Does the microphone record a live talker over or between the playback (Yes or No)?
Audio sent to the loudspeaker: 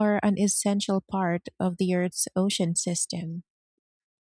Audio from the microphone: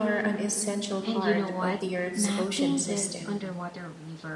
Yes